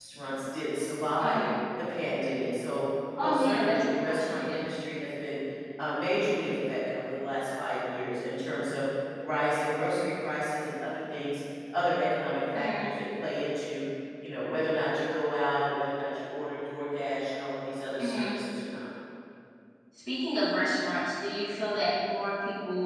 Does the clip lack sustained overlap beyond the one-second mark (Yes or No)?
No